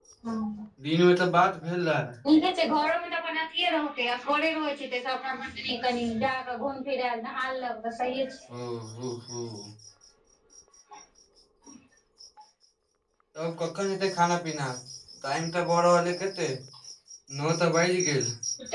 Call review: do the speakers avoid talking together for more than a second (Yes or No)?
Yes